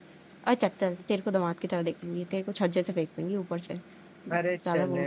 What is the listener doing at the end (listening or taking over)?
taking over